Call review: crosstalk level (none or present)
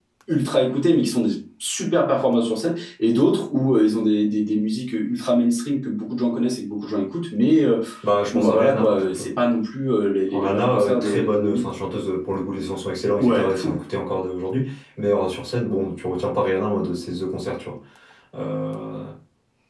present